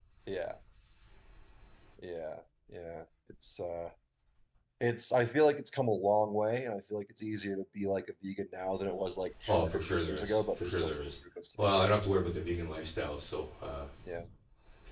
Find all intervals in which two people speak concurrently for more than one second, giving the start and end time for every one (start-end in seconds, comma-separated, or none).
9.5-11.0